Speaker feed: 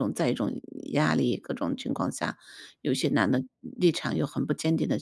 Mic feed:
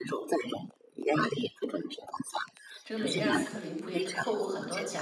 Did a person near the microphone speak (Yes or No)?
Yes